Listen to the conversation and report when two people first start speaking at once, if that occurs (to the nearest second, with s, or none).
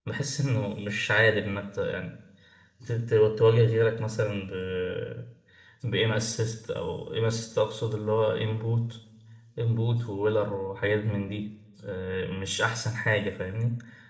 none